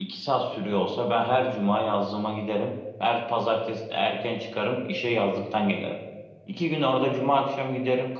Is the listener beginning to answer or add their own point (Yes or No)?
No